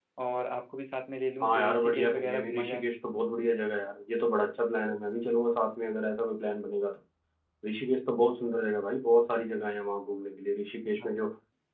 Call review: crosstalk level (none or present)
present